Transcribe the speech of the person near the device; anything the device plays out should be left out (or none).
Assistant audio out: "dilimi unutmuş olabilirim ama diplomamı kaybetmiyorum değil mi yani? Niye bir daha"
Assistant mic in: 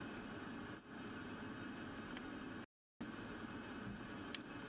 none